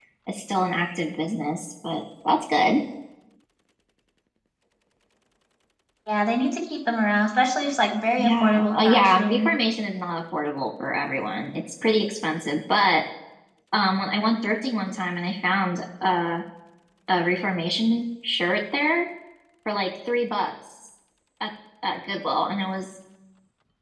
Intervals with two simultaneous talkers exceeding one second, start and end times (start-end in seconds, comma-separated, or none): 8.2-9.5